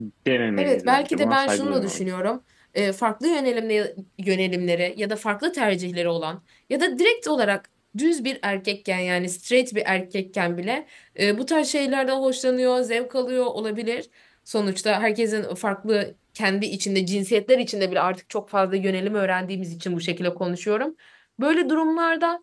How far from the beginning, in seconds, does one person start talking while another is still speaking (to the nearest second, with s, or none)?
1 s